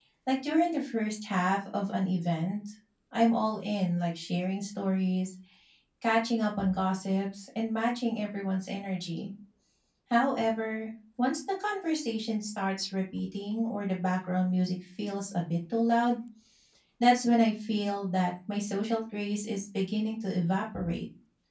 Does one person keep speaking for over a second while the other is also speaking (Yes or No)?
No